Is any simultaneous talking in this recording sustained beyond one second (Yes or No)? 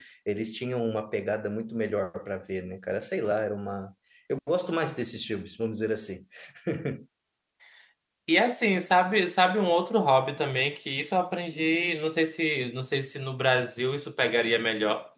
No